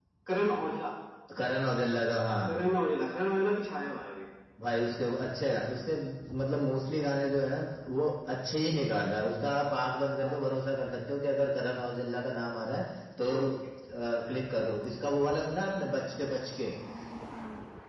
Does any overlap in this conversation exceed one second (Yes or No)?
No